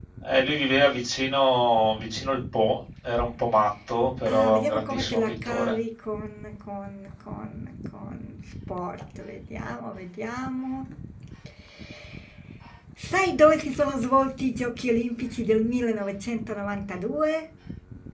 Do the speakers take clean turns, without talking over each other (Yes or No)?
No